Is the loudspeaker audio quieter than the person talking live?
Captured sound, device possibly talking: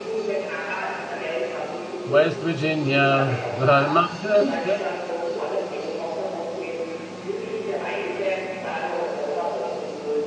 Yes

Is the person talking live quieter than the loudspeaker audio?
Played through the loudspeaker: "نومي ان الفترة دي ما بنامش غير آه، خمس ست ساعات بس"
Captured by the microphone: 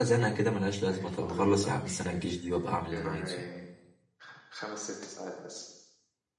No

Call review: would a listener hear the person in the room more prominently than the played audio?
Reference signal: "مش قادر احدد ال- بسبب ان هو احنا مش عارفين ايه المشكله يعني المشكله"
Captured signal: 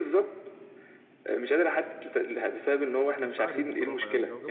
No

